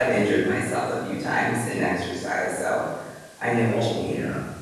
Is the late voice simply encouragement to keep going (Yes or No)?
No